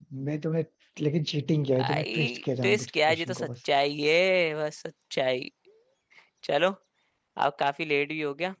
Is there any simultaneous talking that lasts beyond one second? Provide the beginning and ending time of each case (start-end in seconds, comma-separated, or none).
1.8-3.5